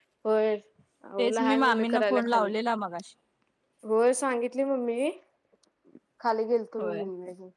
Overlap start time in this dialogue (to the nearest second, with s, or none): 1 s